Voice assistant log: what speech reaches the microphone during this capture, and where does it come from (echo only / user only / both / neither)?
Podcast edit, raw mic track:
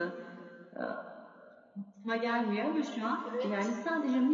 both